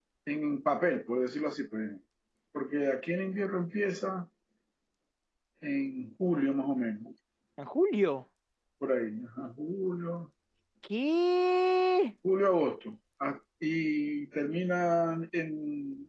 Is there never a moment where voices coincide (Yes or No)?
Yes